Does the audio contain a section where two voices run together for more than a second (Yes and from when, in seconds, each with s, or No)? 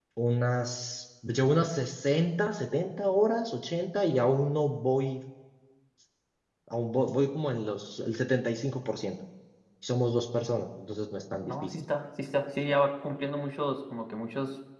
No